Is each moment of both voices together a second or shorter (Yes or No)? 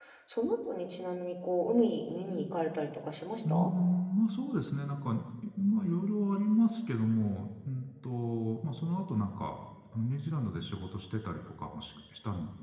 Yes